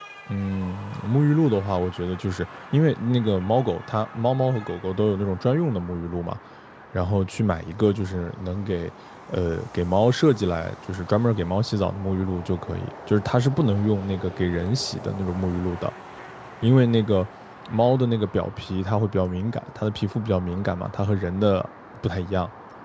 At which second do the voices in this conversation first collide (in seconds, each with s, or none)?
none